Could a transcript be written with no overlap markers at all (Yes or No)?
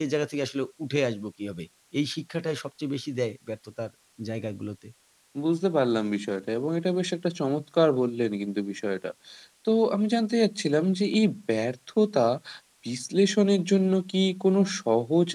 Yes